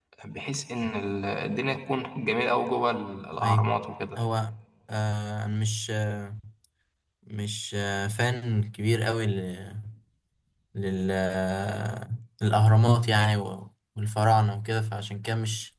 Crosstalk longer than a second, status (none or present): none